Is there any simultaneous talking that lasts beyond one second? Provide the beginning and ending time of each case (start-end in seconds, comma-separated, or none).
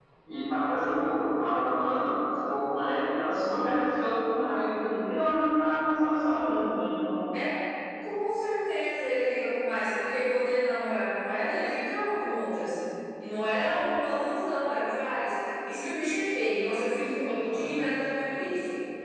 none